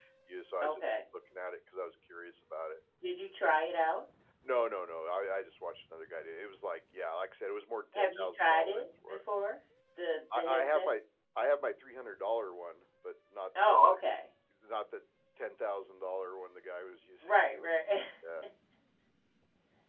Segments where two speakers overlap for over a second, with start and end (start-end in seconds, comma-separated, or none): 8.0-9.2